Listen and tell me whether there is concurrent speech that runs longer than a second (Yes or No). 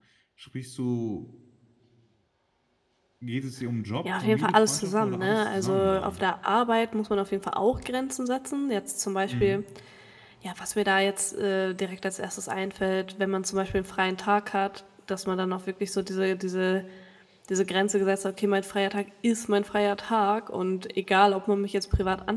Yes